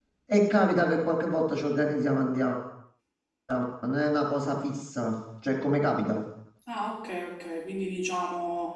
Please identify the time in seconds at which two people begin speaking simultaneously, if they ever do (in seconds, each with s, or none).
none